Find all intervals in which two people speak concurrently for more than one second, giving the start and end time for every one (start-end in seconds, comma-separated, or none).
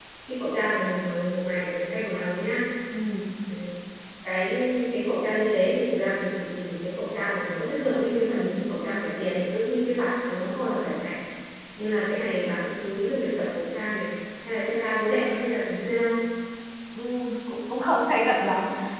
none